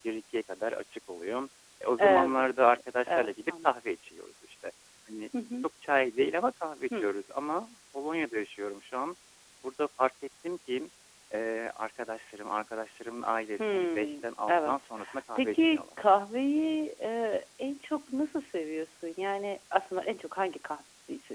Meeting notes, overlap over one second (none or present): present